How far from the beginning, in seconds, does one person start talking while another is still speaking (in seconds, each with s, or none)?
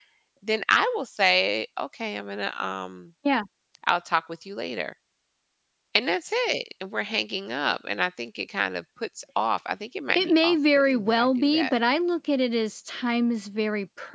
10.1 s